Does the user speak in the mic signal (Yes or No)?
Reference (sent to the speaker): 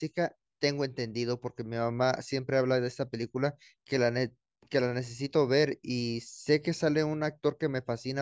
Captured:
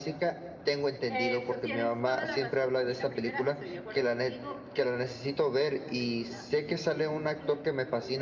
Yes